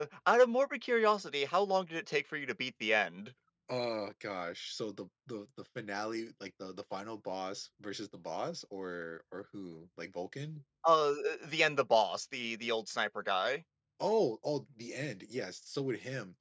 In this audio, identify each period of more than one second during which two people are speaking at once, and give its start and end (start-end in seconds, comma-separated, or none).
none